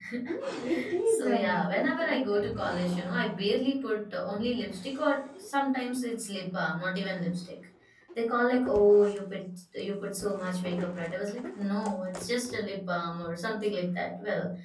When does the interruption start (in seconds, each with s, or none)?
0.6 s